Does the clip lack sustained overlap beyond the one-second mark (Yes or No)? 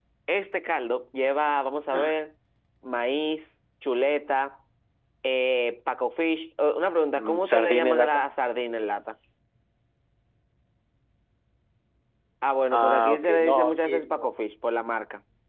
No